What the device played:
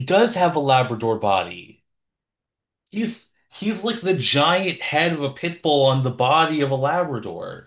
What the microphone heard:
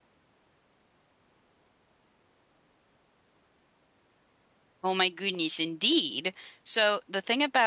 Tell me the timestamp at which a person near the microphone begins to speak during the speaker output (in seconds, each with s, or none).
4.8 s